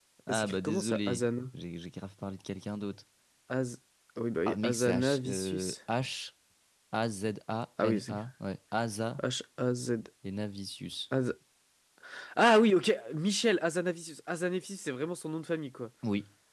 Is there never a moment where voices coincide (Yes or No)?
No